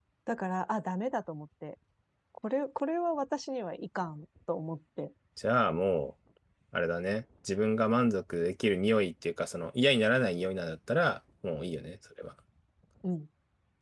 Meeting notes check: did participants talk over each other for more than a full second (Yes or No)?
No